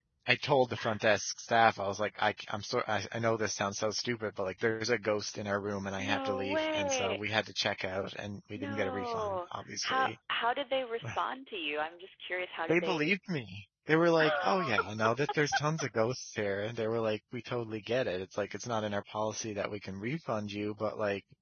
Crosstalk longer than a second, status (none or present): present